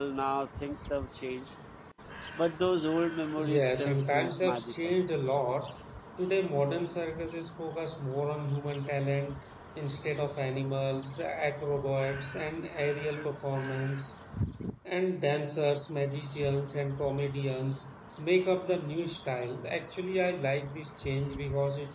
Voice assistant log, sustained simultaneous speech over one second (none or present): present